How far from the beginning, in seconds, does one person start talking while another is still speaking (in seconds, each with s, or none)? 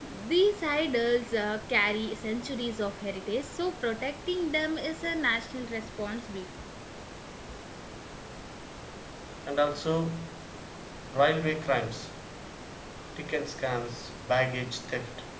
none